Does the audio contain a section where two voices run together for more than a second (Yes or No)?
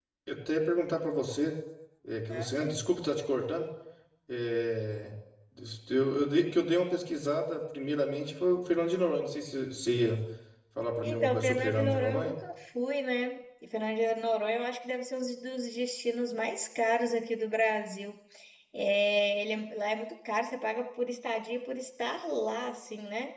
Yes